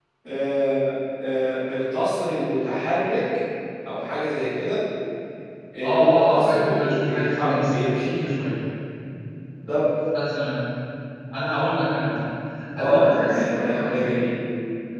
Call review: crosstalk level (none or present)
present